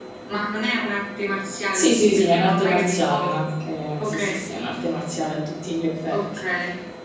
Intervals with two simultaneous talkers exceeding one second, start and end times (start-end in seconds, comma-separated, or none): 1.7-3.3